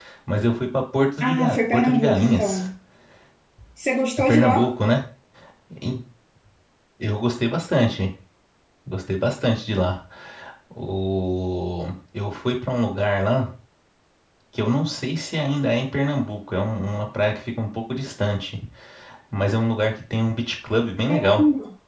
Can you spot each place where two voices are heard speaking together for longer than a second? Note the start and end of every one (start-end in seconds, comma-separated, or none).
1.2-2.6